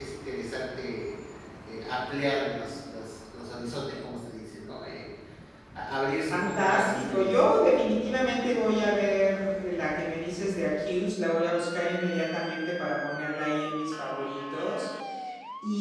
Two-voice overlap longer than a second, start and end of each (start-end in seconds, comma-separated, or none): 6.3-7.6